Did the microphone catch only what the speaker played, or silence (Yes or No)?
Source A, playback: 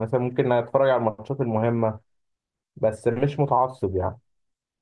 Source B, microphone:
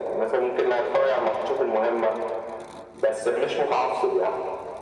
Yes